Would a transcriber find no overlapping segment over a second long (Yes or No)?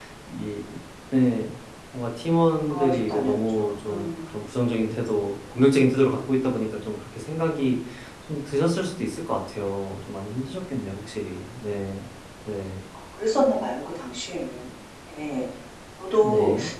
No